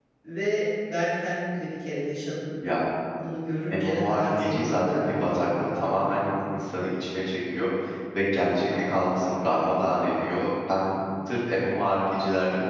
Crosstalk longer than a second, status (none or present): present